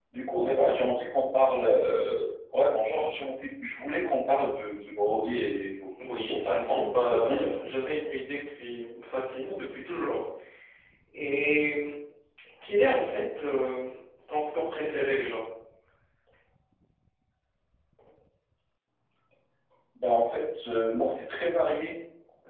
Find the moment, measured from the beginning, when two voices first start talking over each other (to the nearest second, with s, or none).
6 s